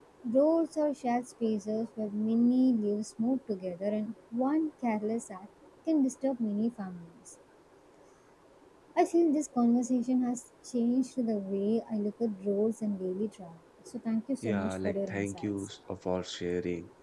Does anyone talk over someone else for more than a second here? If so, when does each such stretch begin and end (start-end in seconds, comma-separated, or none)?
14.4-15.7